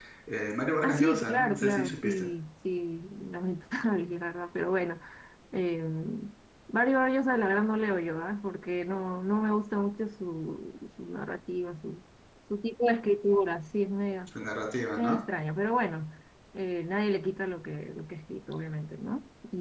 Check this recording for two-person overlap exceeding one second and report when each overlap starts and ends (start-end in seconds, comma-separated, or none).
0.8-2.3